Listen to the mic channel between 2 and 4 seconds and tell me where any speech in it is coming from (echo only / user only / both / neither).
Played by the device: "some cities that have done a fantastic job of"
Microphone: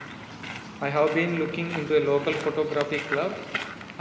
user only